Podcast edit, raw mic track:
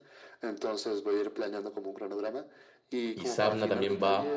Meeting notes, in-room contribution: present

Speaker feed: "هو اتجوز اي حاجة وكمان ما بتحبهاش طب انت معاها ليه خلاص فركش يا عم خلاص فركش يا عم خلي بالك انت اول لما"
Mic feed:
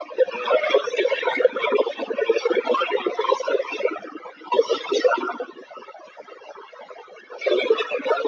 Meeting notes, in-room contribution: none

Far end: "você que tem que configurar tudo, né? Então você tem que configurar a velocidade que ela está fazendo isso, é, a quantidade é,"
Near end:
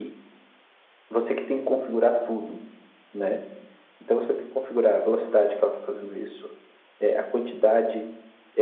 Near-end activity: none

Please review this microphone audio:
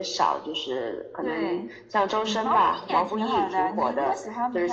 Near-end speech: none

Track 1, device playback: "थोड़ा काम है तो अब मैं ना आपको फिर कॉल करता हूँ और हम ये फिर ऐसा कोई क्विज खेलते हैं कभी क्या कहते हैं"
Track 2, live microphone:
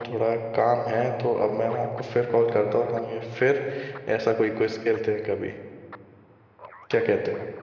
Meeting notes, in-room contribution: none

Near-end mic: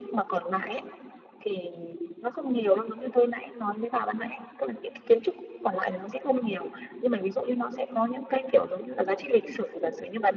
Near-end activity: none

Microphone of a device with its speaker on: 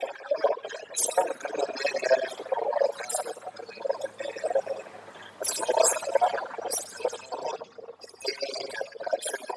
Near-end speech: none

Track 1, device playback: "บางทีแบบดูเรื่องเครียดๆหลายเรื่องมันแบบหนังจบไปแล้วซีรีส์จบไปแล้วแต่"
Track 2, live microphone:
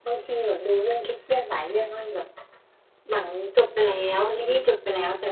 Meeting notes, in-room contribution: none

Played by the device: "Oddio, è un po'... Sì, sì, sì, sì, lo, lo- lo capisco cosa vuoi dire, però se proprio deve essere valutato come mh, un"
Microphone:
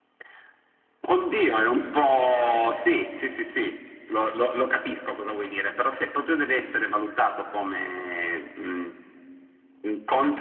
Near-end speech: none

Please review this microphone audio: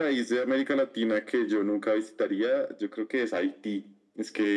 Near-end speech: none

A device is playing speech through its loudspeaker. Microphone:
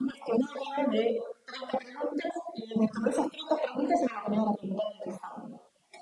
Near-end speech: none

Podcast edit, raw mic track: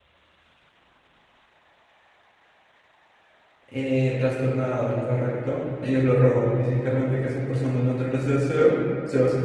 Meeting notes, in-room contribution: present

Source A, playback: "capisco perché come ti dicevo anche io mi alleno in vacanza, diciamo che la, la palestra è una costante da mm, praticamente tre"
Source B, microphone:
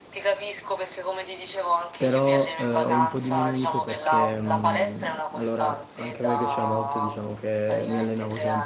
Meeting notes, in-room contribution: present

